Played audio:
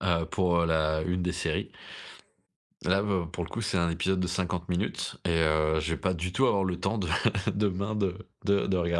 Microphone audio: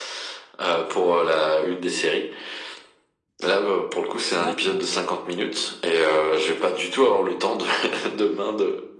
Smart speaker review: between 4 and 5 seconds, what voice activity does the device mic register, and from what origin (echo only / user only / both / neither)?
both